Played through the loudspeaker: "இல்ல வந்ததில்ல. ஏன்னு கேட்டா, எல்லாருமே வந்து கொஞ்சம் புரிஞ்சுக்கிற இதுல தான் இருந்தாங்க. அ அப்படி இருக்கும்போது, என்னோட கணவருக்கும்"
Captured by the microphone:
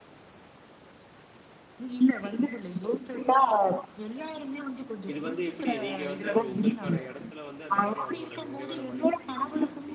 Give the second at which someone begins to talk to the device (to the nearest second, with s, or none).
5 s